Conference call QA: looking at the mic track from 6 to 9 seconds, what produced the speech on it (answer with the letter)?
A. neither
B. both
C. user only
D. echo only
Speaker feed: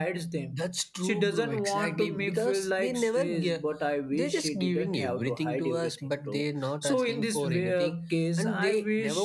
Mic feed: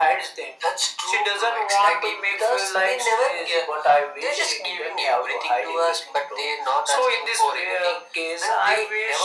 D